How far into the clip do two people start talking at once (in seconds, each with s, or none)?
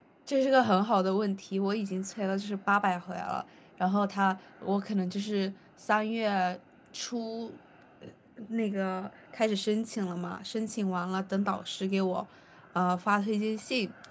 none